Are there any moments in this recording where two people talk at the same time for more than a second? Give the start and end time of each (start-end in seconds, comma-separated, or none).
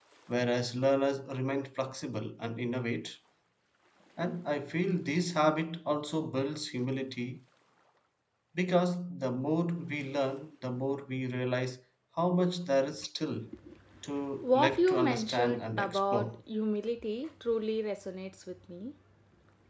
14.4-16.4